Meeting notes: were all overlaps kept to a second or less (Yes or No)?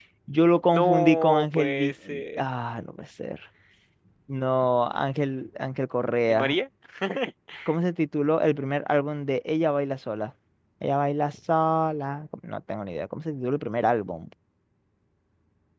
No